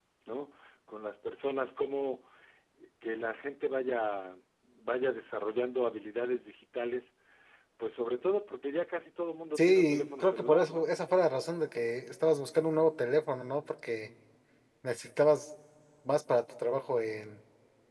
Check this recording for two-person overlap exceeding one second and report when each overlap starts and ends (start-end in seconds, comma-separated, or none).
9.6-10.9